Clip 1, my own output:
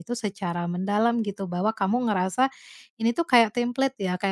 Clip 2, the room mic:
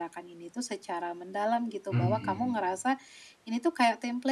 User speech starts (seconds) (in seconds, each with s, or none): 1.9 s